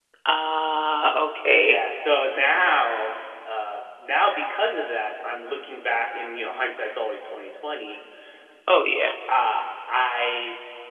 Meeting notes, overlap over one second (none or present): none